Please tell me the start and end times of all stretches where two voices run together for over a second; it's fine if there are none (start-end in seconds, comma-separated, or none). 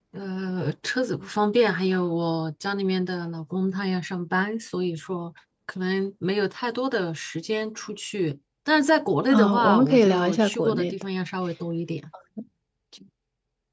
9.3-10.9